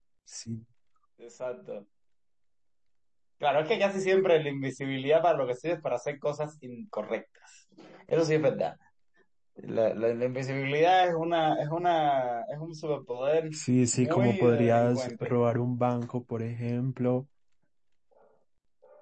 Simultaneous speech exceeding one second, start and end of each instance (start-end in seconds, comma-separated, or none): 13.9-15.3